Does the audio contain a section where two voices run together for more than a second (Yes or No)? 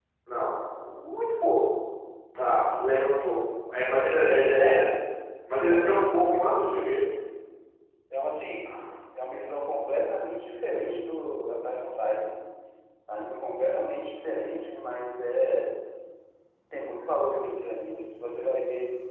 Yes